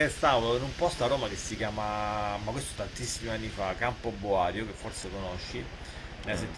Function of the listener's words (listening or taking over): listening